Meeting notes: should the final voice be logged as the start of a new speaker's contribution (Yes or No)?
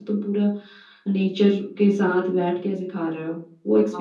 Yes